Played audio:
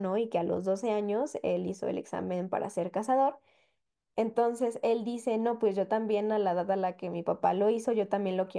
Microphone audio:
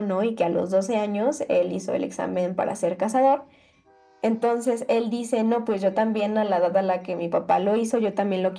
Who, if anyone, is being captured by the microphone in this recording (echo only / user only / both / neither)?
echo only